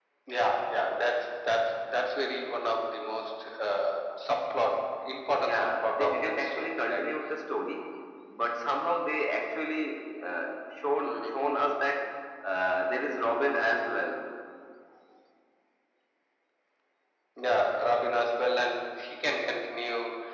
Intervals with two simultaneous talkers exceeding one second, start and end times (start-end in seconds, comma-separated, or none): 5.4-7.0